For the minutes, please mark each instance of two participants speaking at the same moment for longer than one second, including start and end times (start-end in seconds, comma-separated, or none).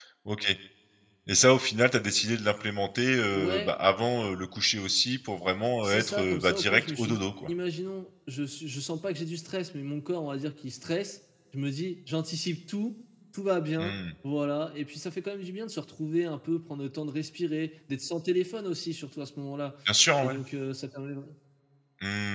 5.8-7.5